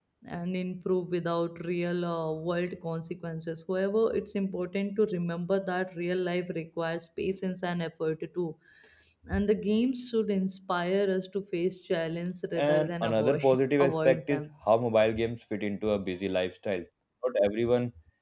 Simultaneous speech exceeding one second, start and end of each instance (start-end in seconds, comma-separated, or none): 12.6-14.4